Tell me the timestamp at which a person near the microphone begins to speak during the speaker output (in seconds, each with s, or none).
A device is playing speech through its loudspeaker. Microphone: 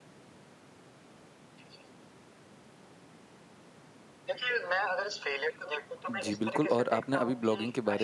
6.1 s